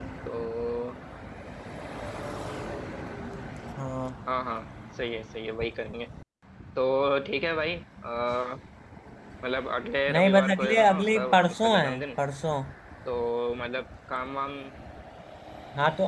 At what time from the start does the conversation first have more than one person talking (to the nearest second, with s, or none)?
10 s